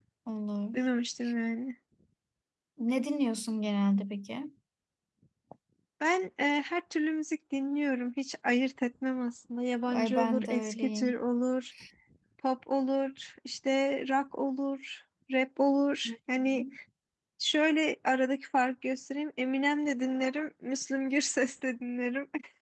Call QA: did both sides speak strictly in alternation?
No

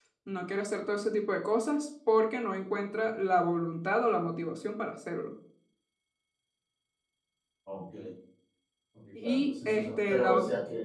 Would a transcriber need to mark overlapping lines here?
Yes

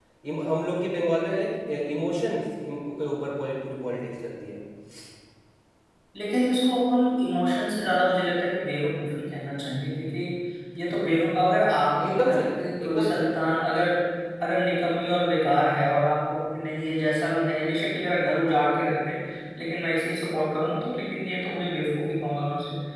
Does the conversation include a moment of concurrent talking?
Yes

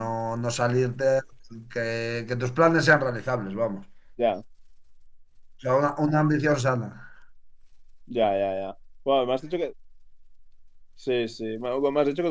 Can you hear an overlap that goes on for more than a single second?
No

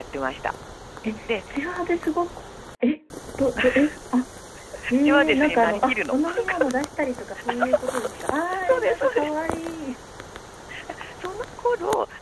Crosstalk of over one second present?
Yes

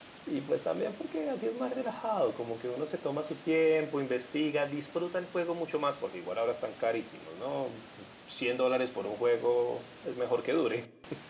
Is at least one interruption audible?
No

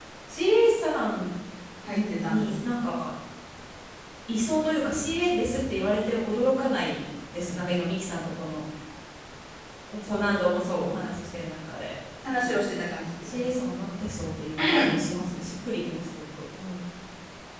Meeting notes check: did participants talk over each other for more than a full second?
No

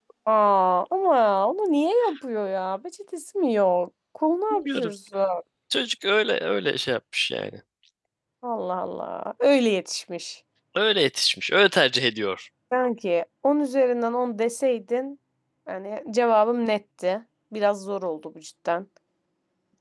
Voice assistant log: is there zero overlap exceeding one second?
Yes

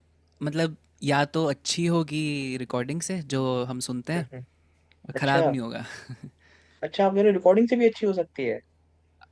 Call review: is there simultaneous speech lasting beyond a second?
No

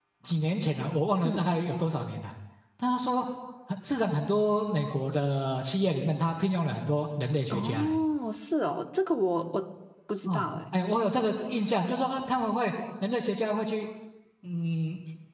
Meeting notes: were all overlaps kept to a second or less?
Yes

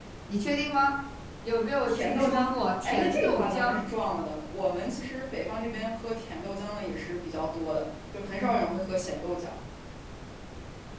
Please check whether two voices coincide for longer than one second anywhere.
Yes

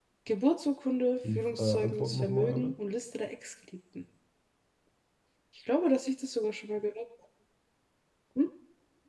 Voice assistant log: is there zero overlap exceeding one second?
No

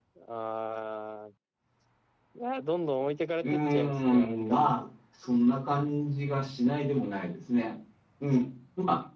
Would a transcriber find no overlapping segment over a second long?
No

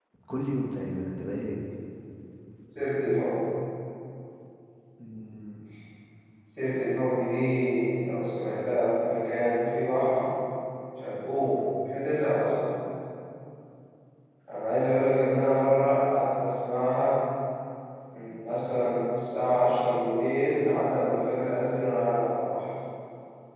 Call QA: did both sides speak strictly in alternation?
Yes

